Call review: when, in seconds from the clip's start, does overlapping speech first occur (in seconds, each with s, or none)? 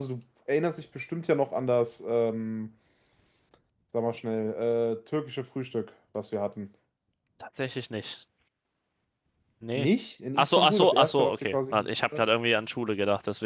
10.4 s